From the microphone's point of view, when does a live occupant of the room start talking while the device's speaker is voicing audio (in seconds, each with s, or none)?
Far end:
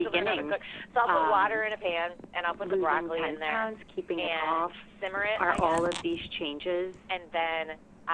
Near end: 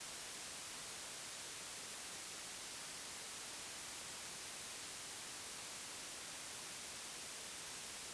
none